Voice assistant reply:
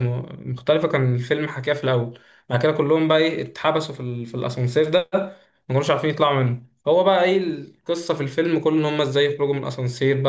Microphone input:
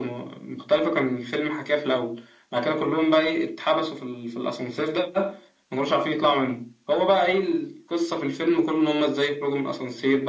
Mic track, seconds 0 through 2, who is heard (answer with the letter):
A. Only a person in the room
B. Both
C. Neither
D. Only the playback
D